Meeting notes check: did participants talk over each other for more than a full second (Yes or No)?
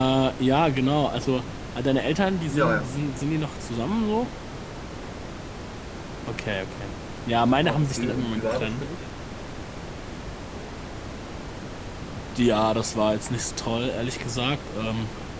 Yes